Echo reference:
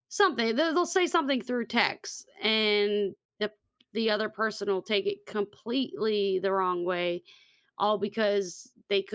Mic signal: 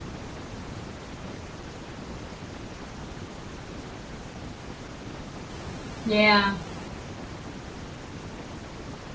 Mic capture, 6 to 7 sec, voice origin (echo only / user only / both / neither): user only